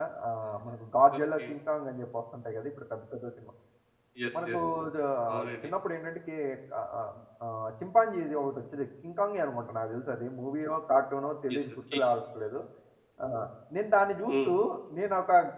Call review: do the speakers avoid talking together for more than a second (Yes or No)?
Yes